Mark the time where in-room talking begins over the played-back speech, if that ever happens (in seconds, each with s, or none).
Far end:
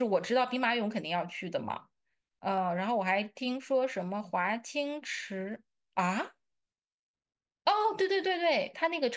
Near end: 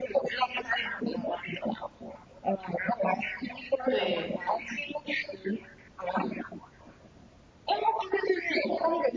3.9 s